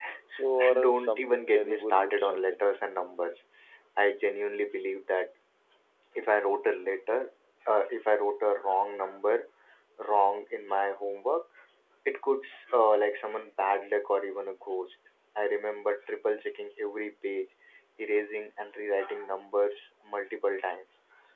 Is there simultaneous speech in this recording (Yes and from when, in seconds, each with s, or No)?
Yes, from 0.6 s